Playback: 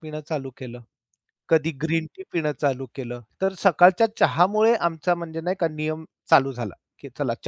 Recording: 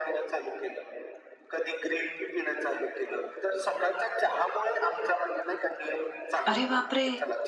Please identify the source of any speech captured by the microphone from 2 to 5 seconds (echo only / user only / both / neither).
echo only